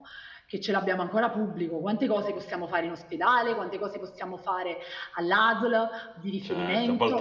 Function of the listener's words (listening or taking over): taking over